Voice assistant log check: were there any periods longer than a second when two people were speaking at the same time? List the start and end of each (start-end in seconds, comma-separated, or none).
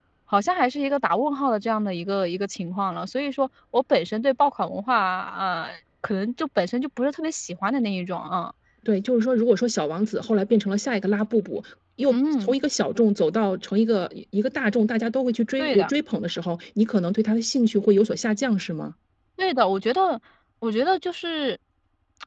none